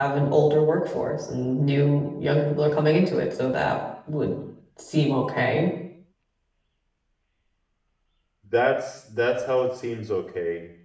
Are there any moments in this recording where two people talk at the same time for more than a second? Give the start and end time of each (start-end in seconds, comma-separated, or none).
none